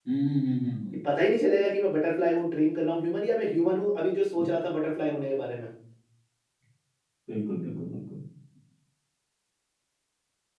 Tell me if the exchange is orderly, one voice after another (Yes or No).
Yes